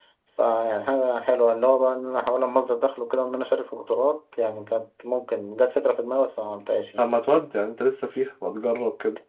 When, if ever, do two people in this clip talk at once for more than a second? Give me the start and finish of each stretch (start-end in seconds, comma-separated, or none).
none